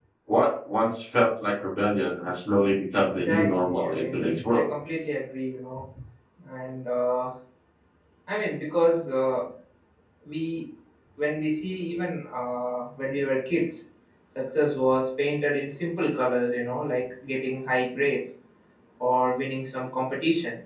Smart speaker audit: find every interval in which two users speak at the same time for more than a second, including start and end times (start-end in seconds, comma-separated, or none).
3.2-4.7